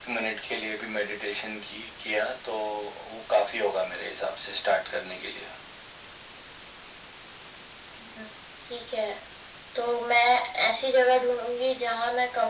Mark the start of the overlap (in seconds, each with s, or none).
none